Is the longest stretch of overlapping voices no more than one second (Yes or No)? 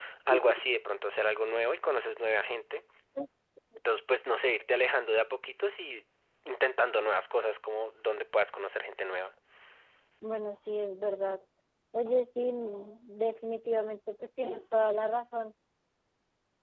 Yes